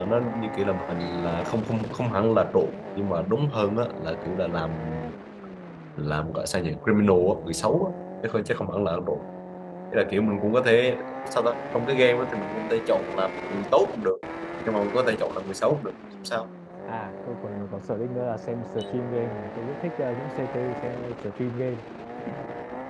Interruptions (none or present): none